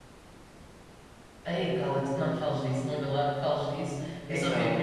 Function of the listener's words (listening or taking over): listening